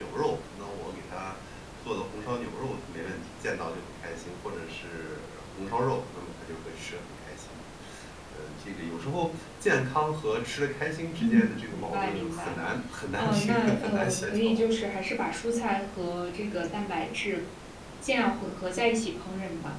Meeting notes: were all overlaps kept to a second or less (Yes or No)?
No